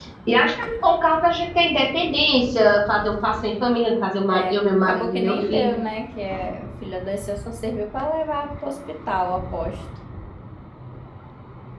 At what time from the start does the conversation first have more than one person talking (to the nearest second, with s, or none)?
4 s